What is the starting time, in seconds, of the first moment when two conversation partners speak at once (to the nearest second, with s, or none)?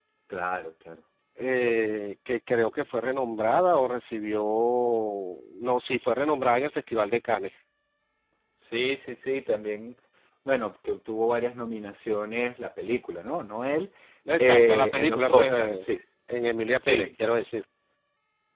14 s